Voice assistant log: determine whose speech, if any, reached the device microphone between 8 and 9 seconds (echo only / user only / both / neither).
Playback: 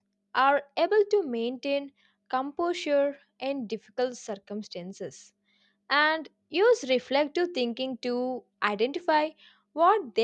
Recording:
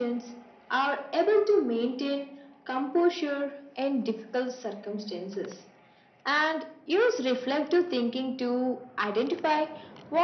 echo only